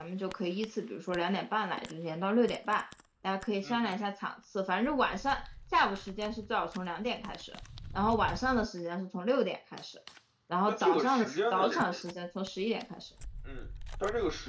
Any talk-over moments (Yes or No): Yes